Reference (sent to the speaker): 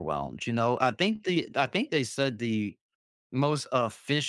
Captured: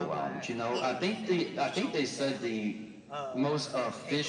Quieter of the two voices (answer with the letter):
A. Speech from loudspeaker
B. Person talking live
B